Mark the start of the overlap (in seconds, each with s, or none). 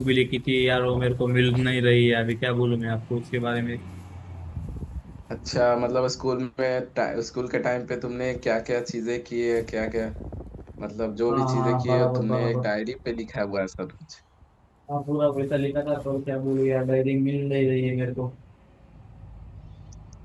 11.3 s